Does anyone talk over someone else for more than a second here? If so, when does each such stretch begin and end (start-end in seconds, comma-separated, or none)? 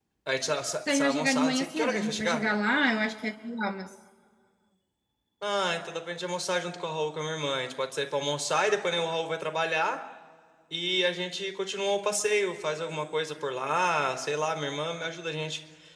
0.9-2.4